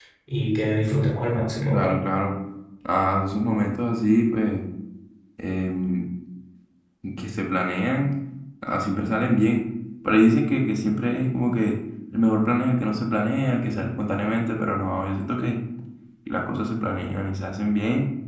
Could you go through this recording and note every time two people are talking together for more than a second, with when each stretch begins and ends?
none

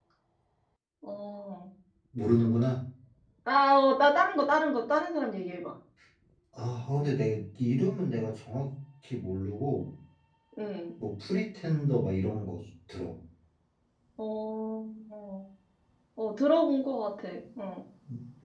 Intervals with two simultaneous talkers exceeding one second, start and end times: none

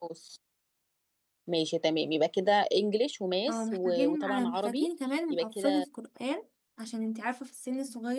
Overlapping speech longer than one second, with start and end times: 3.5-4.9

